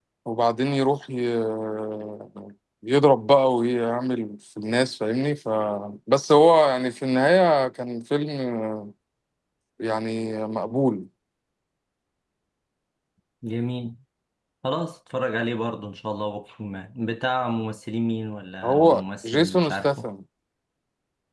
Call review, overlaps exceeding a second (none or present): present